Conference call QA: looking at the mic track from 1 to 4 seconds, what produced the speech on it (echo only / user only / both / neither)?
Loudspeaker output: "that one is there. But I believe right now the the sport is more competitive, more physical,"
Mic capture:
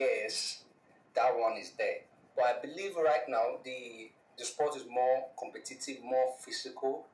echo only